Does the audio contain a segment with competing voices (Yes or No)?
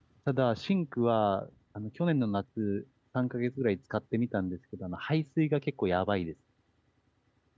No